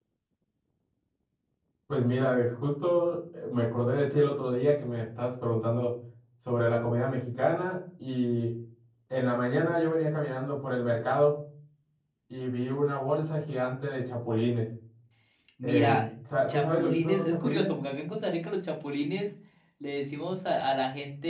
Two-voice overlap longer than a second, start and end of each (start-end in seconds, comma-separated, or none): 16.5-17.8